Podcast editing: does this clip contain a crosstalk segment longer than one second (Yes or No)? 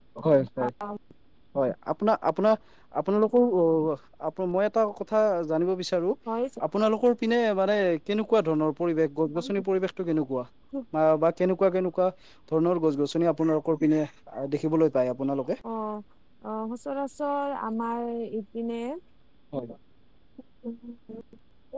No